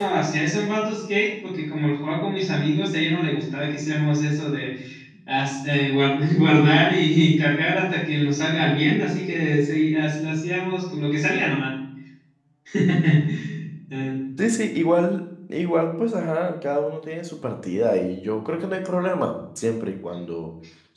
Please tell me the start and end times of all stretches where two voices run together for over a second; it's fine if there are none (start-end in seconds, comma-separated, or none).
none